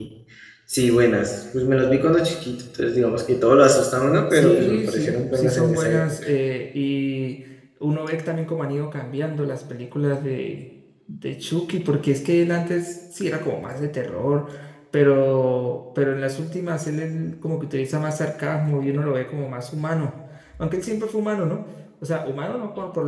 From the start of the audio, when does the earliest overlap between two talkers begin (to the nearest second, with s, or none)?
4 s